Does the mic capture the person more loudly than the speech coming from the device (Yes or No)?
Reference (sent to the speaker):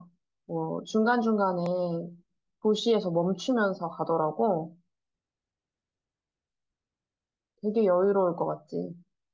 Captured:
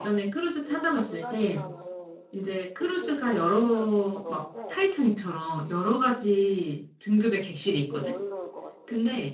Yes